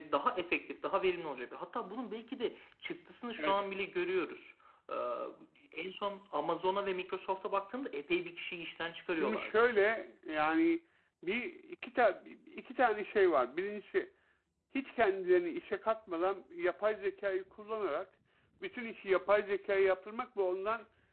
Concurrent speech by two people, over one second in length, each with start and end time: none

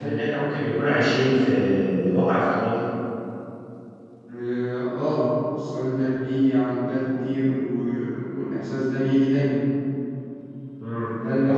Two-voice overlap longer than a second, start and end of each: none

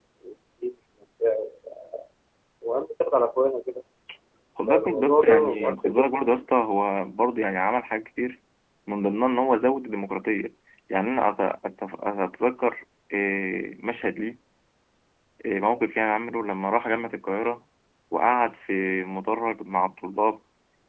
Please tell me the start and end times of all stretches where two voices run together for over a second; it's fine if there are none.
4.7-6.2

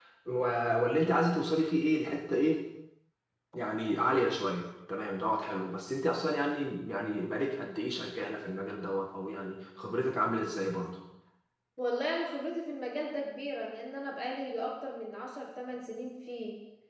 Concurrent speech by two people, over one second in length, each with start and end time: none

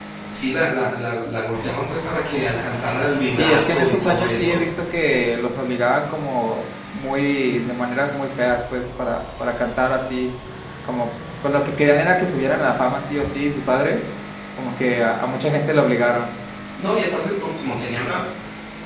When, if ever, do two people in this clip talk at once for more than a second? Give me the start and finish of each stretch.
3.3-4.6

